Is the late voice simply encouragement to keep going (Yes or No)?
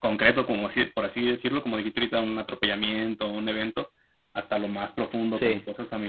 Yes